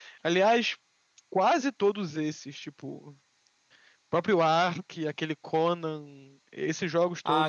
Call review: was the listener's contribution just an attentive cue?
No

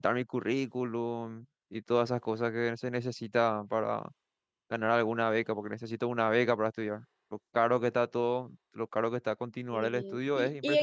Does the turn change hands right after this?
Yes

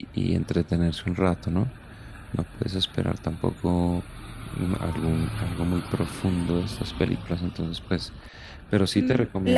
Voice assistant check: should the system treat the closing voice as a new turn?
Yes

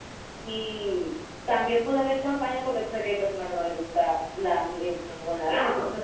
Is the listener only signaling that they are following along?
Yes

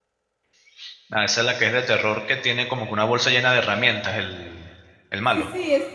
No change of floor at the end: No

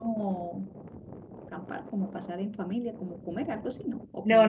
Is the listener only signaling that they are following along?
No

